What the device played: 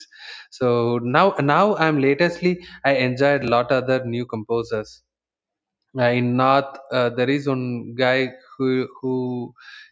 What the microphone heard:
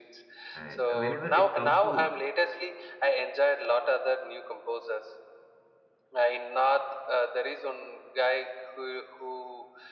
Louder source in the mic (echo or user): echo